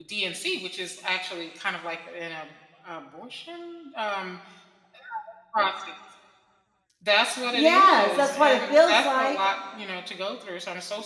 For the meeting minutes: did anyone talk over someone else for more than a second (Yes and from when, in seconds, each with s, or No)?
Yes, from 7.5 s